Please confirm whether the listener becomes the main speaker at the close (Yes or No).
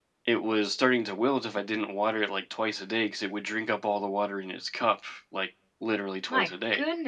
Yes